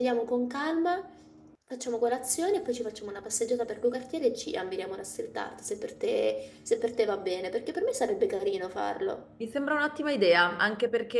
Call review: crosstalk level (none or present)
none